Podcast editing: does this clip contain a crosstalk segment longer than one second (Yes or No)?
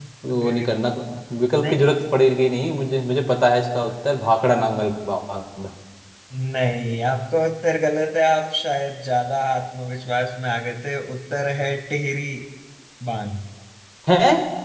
No